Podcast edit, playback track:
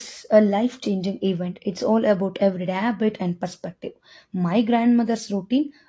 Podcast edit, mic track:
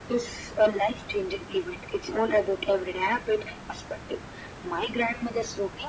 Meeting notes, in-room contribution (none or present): none